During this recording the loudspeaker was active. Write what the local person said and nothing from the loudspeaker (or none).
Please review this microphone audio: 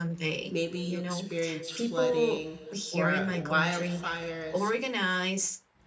maybe you experienced flooding or wildfires